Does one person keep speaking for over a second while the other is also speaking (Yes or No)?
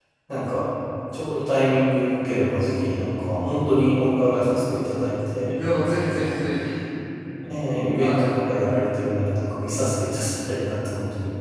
No